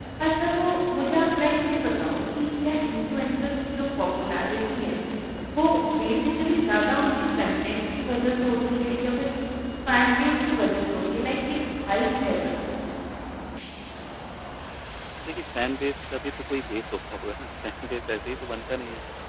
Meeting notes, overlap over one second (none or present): none